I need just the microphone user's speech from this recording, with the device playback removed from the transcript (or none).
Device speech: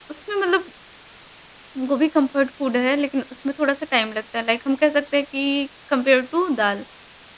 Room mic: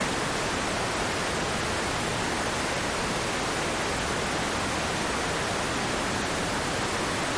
none